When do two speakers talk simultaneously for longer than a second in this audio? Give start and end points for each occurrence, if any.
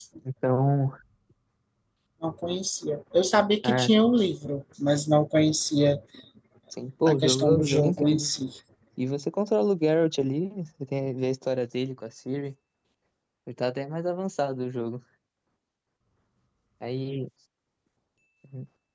7.1-8.3

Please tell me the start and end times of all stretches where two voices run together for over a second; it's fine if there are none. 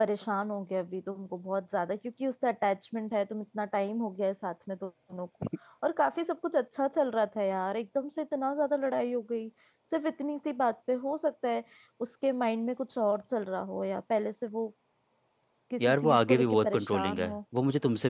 15.9-17.4

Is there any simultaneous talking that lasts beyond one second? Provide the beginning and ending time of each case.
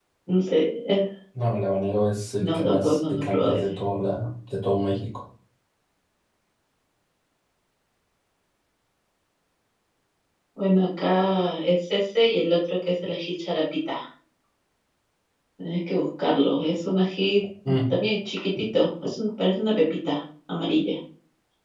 2.4-3.6

